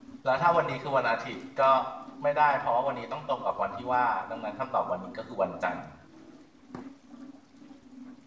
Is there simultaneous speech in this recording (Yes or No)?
No